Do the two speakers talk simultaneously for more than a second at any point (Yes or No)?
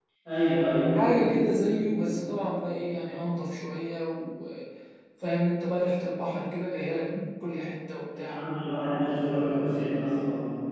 No